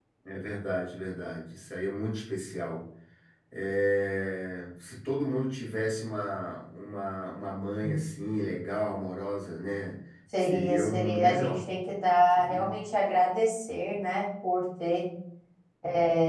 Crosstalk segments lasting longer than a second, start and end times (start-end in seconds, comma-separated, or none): 10.4-11.6